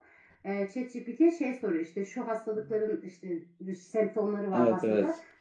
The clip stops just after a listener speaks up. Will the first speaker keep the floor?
Yes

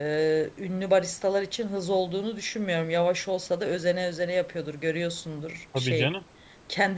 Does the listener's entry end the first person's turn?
No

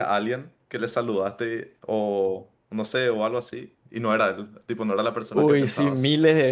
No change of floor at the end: No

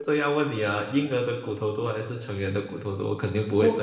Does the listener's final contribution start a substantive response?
Yes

